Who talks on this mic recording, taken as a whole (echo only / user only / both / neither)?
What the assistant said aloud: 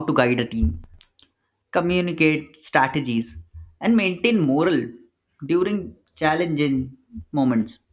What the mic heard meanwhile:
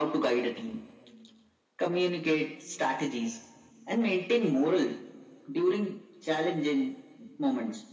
echo only